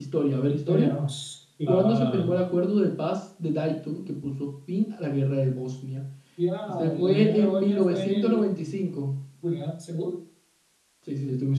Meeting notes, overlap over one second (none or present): present